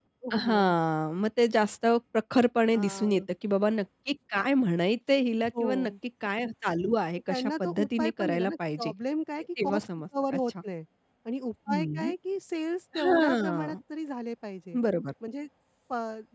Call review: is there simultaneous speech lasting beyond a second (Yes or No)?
Yes